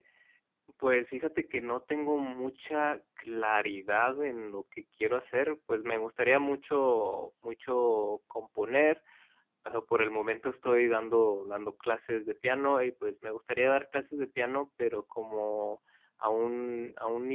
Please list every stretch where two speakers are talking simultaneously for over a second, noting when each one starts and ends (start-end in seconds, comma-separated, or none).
none